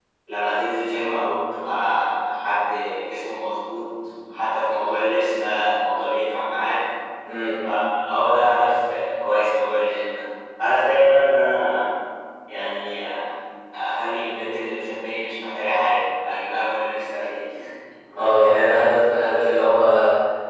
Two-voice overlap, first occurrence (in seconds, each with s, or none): none